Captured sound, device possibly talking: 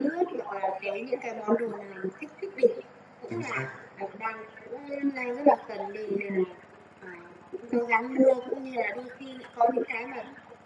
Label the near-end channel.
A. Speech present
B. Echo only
A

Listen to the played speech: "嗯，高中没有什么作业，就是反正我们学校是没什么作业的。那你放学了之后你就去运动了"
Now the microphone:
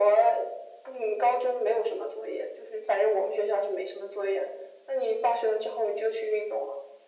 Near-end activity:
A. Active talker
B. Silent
B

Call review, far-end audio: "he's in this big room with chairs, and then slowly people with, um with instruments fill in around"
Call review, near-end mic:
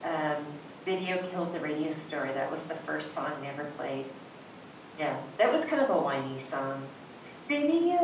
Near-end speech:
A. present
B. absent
A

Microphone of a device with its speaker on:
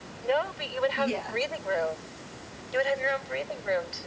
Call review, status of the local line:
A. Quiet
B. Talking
B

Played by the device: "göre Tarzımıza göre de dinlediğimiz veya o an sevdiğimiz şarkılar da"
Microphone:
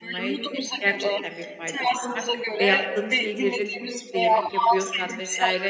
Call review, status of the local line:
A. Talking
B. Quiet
A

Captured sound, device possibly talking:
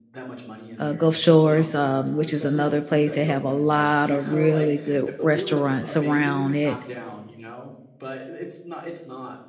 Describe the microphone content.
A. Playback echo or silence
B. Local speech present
B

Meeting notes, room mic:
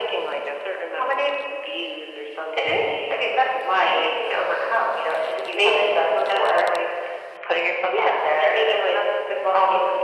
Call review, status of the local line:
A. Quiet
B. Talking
A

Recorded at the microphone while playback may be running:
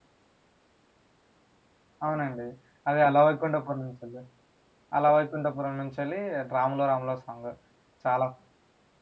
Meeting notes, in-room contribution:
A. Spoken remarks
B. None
A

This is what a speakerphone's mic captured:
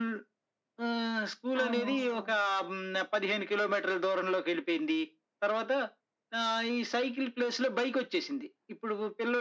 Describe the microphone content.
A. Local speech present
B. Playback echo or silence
A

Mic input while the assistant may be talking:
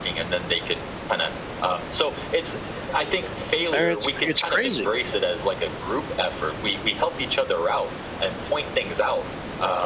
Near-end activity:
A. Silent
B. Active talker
B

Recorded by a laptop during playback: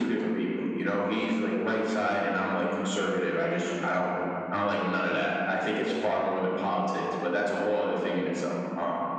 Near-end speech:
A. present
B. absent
B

